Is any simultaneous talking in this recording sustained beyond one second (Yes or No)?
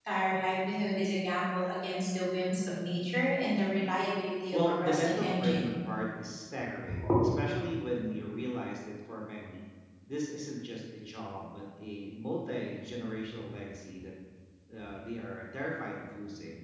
Yes